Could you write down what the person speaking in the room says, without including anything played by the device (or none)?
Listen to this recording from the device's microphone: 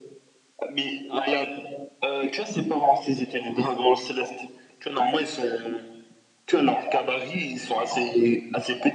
none